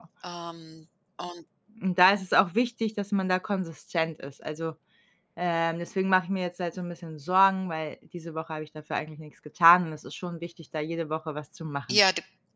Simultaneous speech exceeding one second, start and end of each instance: none

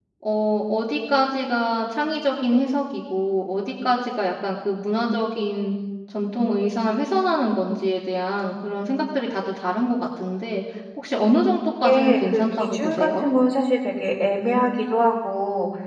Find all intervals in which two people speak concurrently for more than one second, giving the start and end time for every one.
11.8-13.3

